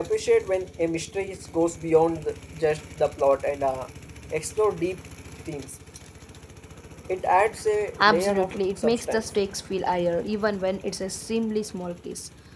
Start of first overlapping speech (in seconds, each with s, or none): 8.0 s